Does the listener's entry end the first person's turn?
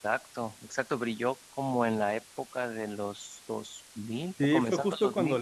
Yes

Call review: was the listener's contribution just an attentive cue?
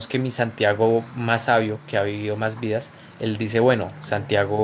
Yes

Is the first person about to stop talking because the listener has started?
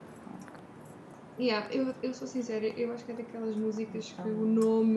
No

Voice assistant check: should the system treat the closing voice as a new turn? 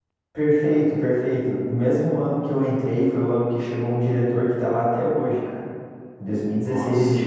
No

